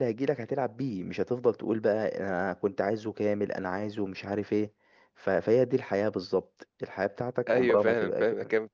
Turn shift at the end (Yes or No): Yes